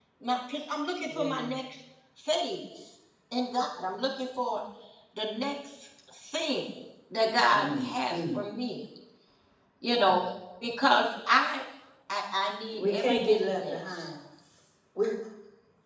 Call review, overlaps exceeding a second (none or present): present